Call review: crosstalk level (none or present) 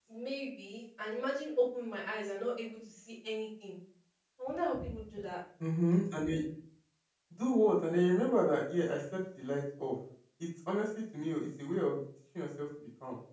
none